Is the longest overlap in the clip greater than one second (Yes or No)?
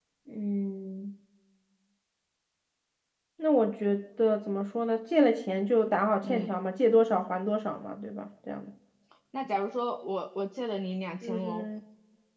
No